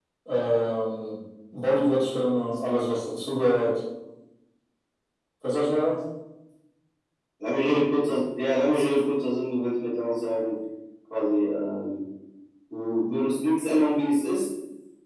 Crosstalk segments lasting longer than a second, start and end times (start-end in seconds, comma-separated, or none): none